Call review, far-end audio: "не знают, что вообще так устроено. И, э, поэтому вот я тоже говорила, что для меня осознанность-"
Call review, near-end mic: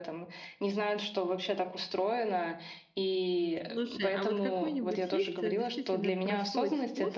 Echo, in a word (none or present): present